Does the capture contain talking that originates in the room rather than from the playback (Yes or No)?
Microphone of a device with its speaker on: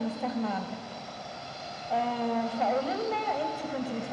No